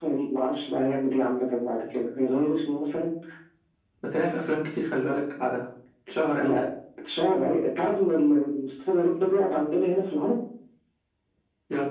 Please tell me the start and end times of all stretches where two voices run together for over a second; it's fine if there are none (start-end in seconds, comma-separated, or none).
none